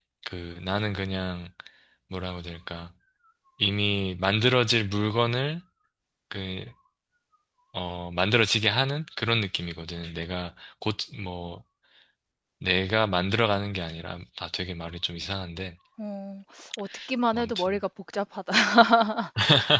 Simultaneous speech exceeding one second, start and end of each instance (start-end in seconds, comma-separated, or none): none